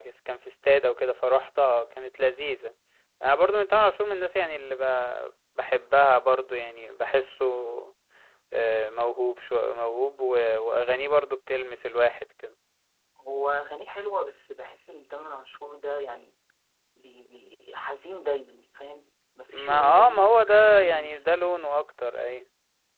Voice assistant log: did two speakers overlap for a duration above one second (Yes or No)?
Yes